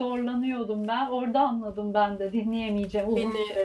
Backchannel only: No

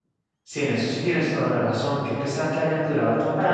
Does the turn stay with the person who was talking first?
No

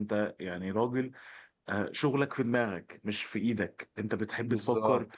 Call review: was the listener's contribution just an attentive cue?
Yes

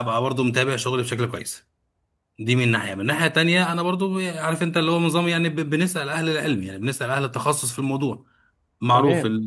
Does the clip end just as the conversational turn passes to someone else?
Yes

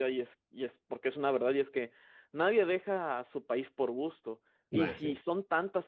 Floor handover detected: No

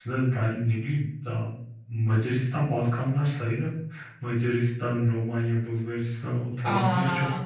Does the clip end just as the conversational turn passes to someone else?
No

